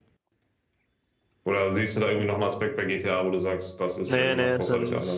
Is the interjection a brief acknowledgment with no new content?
No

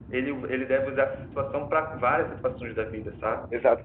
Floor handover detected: Yes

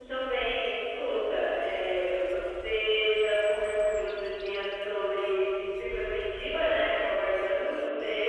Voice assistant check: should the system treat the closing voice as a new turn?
No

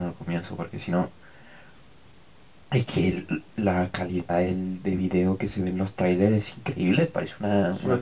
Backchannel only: No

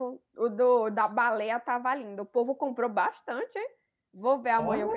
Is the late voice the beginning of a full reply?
No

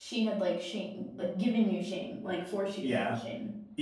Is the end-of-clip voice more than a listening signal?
Yes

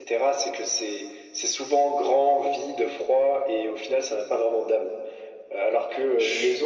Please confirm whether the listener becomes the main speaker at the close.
No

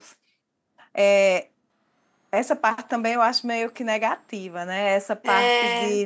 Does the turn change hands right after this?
No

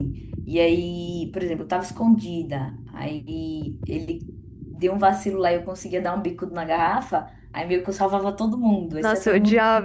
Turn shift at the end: Yes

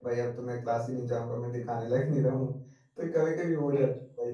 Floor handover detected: No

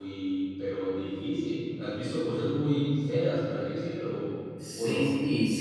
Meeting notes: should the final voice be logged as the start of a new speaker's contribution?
Yes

